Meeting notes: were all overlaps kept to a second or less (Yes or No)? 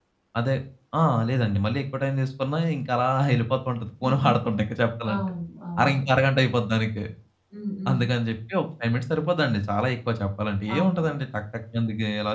Yes